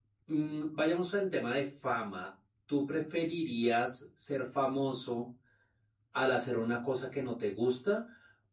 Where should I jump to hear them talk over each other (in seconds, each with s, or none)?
none